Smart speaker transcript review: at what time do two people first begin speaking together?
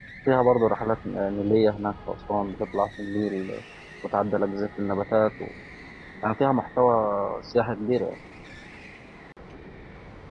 none

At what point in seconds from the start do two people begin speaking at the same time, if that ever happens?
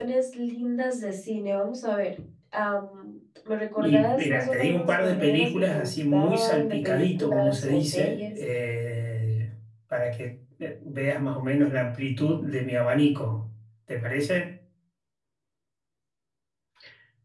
3.8 s

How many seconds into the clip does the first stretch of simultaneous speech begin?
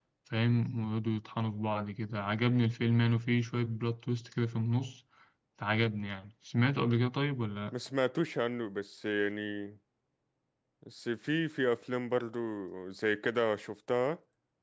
none

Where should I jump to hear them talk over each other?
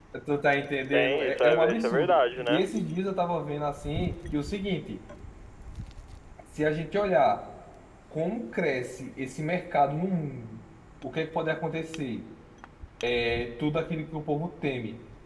0.9 s

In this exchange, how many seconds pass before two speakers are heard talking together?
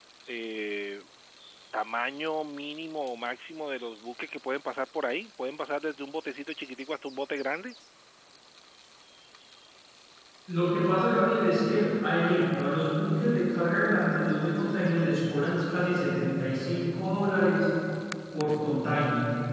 none

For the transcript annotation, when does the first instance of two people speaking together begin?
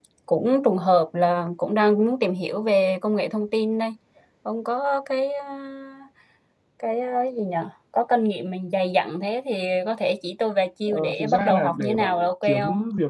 10.9 s

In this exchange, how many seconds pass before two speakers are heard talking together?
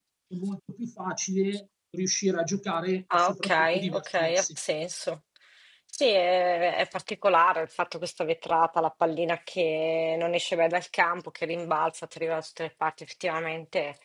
3.1 s

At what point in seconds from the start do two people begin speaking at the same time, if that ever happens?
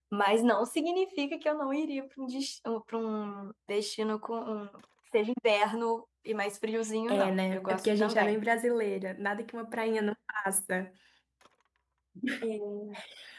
7.1 s

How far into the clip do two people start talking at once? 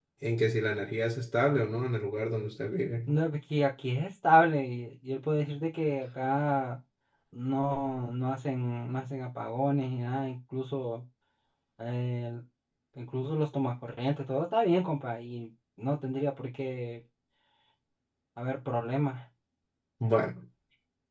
none

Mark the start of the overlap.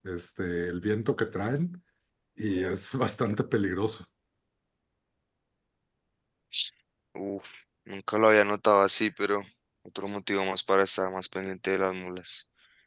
none

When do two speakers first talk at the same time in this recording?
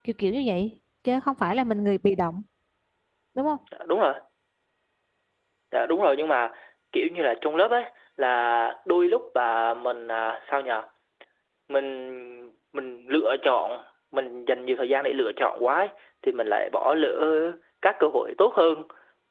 none

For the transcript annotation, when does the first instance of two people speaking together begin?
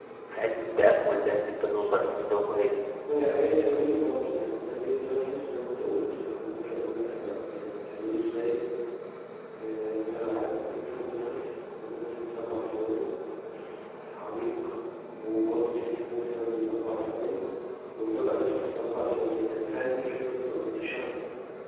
none

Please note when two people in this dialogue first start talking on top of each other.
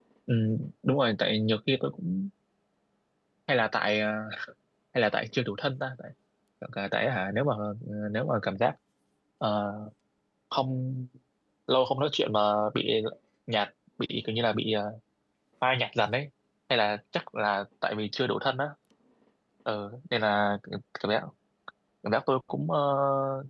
none

